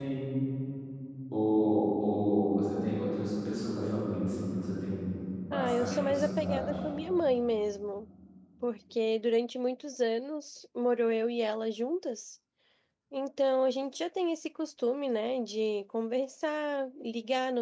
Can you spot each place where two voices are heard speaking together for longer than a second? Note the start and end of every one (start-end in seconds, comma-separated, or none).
5.5-6.8